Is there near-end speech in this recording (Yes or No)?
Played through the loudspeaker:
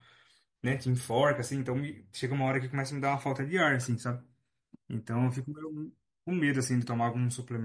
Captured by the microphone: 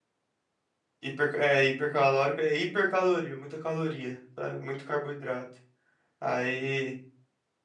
Yes